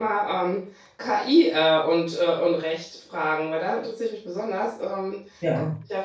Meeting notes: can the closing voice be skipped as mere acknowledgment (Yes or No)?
Yes